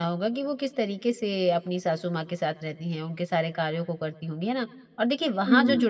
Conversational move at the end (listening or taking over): listening